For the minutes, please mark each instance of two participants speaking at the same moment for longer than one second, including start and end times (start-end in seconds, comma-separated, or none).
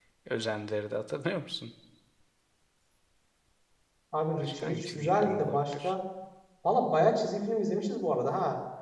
4.4-5.9